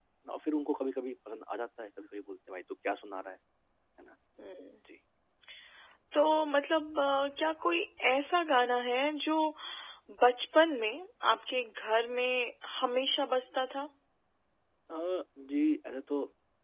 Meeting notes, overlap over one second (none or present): none